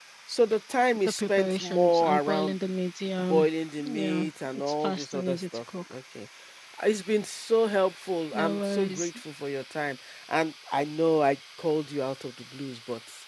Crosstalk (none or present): present